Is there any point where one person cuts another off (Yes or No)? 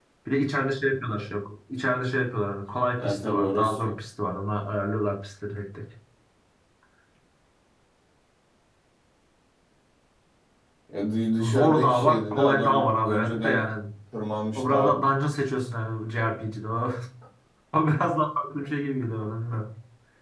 Yes